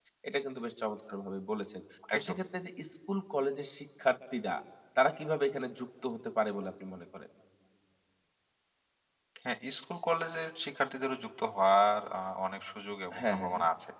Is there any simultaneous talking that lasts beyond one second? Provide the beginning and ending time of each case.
none

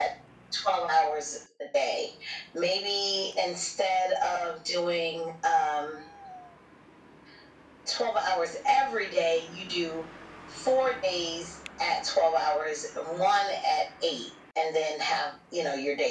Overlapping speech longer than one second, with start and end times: none

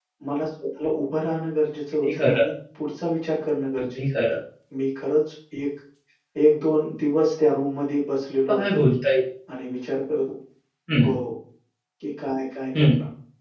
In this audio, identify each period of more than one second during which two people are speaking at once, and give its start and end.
none

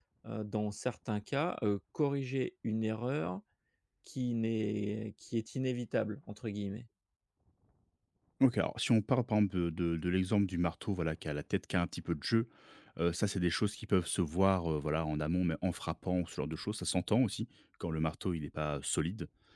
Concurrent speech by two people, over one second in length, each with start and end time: none

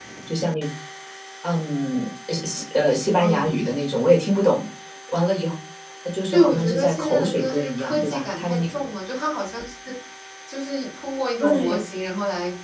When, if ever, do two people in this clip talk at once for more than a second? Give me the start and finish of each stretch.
6.3-8.6

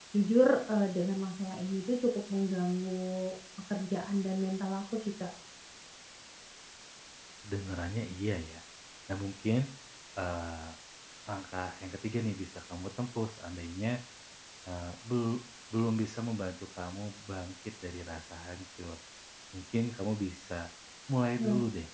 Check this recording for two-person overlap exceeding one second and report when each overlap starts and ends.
none

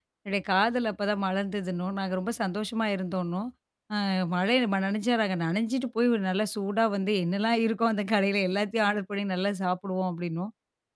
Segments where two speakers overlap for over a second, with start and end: none

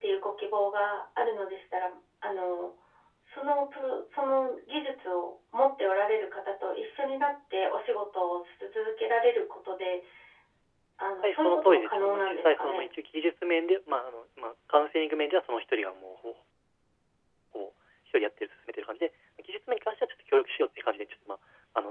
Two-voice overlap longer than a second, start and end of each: 11.2-12.9

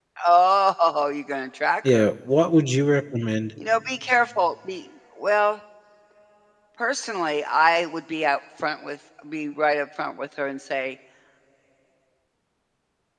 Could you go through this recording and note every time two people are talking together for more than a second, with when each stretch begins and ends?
none

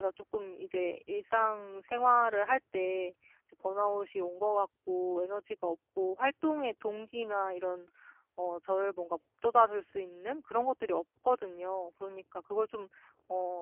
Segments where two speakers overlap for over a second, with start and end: none

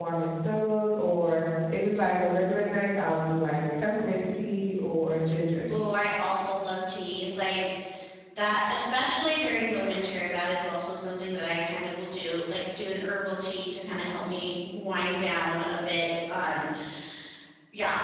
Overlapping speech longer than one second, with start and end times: none

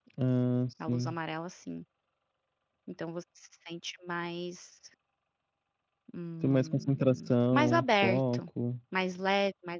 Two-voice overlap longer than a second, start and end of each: 6.4-8.4

